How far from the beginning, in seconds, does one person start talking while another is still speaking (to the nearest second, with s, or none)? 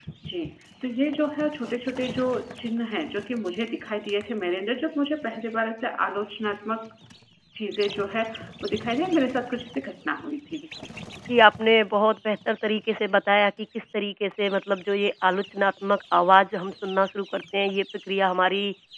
none